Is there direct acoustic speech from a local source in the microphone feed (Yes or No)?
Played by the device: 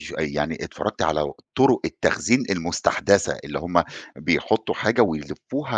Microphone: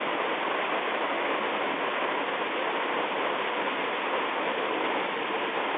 No